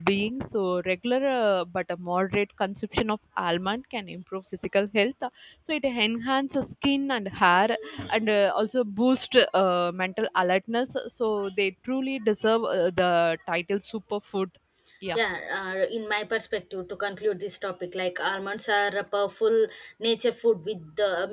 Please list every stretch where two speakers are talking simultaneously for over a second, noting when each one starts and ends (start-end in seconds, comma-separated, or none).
none